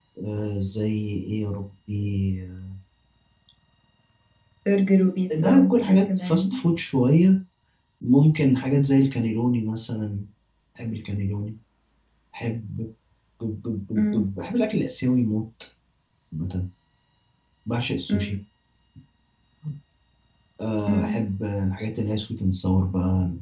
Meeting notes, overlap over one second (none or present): present